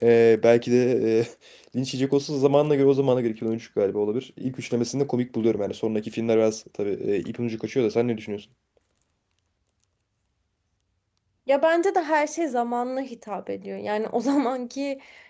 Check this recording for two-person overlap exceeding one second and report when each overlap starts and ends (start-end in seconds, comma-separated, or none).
none